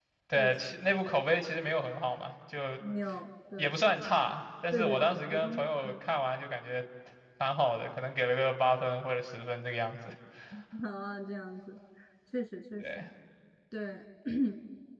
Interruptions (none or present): present